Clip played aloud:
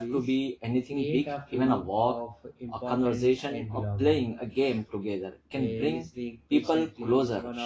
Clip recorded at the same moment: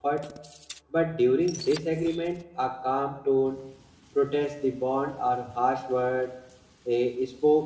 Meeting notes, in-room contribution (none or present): present